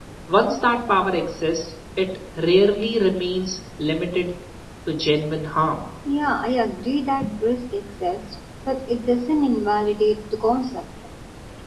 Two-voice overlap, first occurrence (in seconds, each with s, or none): none